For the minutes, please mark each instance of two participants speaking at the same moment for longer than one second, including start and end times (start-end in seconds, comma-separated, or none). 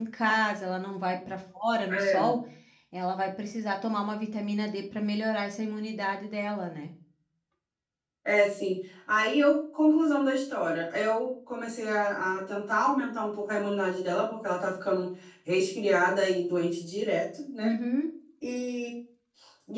none